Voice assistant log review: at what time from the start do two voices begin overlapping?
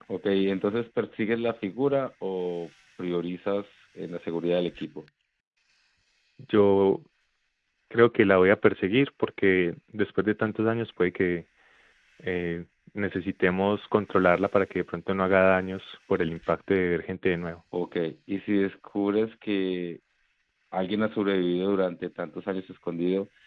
none

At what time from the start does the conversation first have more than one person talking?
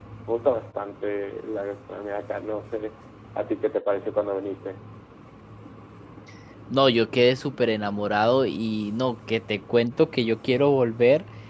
none

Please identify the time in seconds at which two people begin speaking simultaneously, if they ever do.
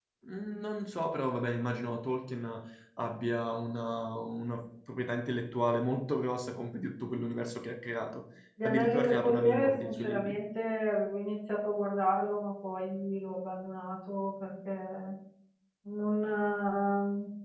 8.6 s

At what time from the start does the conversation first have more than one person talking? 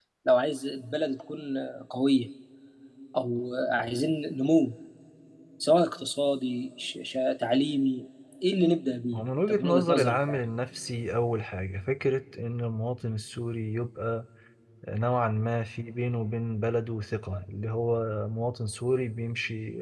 9.1 s

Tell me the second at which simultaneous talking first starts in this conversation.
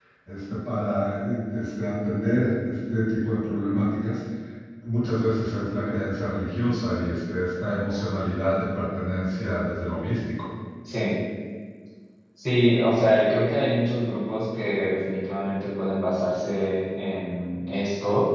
none

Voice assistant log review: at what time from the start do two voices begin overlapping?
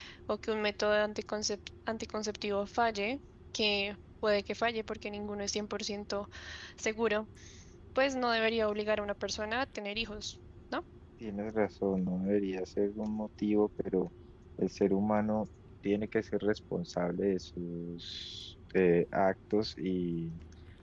none

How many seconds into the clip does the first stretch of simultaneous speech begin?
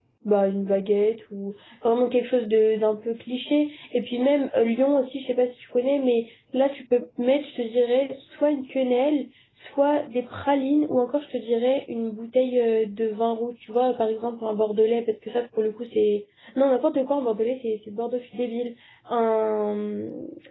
none

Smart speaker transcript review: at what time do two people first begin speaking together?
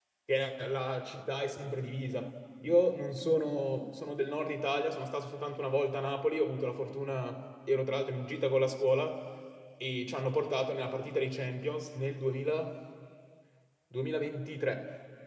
none

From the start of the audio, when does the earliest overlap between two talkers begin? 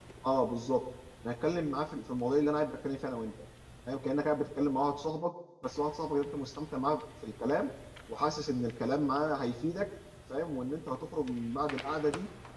none

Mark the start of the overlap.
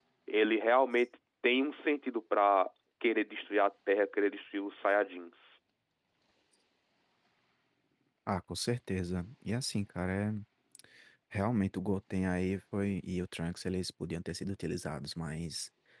none

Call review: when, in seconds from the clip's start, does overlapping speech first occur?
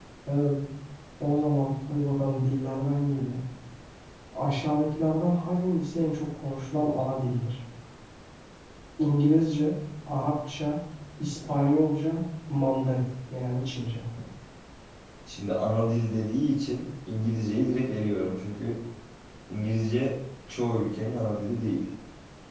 none

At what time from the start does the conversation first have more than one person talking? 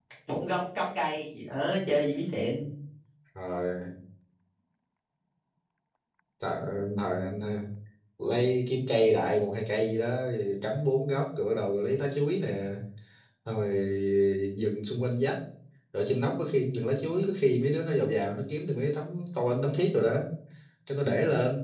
none

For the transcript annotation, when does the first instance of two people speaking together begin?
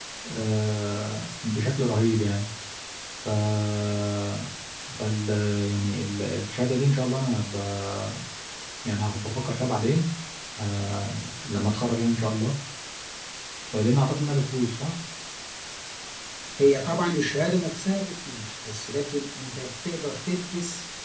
none

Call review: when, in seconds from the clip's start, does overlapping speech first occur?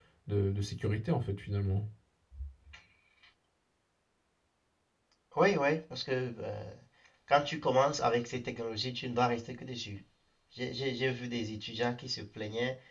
none

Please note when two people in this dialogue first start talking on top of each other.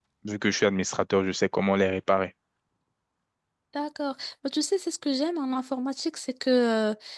none

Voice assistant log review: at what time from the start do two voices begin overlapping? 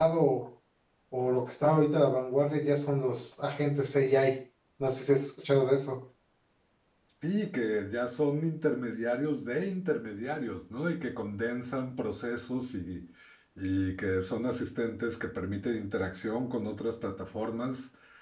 none

